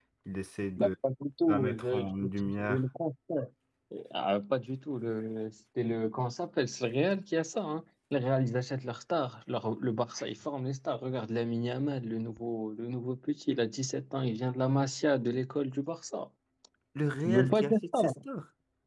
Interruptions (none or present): present